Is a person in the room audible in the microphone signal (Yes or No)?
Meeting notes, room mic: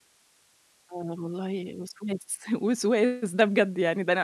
Yes